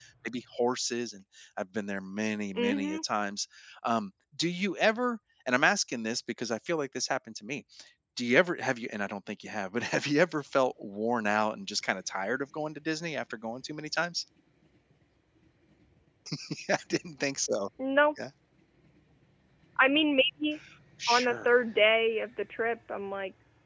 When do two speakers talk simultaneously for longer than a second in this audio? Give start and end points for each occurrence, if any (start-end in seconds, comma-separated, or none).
none